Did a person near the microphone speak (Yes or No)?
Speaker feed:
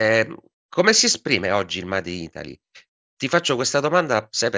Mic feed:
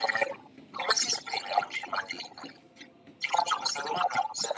No